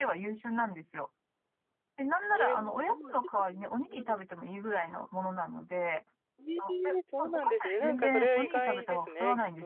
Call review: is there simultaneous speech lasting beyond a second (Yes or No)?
Yes